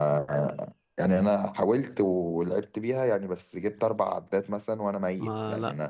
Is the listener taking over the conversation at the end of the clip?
Yes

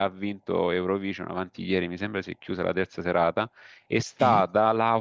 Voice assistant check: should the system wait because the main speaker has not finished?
Yes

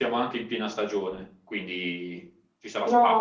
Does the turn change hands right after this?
Yes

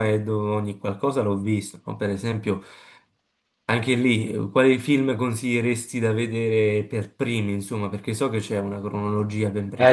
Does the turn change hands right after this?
Yes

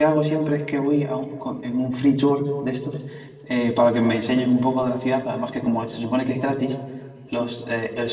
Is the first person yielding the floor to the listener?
No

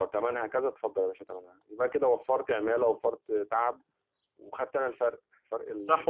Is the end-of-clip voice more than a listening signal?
Yes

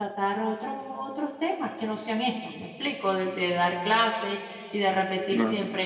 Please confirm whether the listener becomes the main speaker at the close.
No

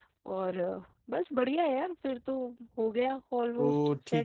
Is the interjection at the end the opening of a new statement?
Yes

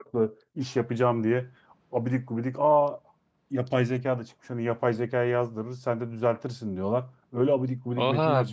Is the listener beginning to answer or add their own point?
Yes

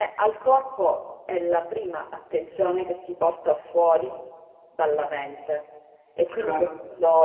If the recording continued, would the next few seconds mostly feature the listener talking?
No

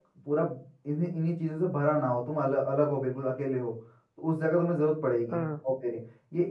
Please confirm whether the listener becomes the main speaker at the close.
No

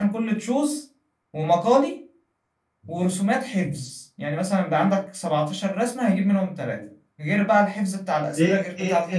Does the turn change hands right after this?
Yes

